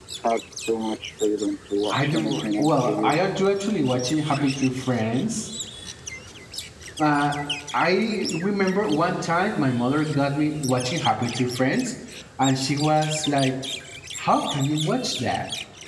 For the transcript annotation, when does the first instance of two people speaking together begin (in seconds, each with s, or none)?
1.9 s